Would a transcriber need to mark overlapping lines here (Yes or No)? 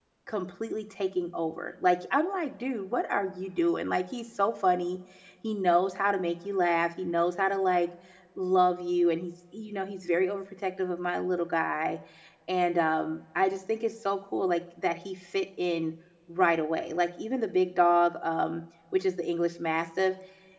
No